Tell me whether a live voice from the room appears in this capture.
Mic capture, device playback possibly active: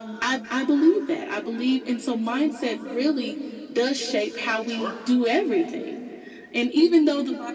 Yes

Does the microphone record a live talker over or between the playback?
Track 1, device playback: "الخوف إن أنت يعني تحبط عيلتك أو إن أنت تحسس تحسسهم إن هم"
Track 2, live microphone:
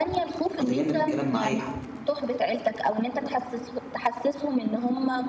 Yes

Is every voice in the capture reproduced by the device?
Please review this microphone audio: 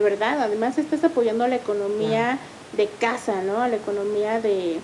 No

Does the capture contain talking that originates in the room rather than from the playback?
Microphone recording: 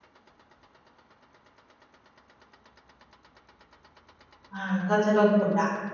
Yes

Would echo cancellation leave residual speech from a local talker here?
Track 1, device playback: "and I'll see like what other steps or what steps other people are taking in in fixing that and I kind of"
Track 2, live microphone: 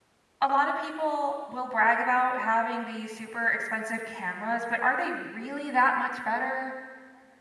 Yes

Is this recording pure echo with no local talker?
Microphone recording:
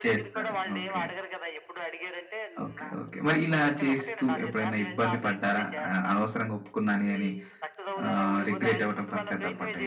No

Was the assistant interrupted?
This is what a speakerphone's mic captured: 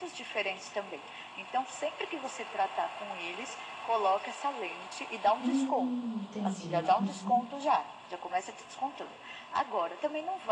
Yes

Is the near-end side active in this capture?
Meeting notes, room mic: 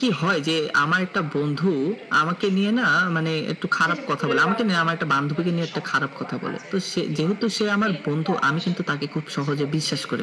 Yes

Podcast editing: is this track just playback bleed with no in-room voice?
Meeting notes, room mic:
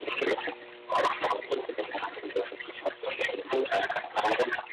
Yes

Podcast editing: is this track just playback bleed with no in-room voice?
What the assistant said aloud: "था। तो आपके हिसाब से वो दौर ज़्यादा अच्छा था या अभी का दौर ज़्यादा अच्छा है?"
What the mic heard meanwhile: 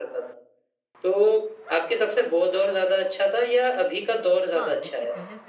No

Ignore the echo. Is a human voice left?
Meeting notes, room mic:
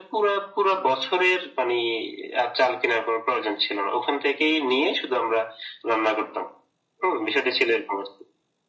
No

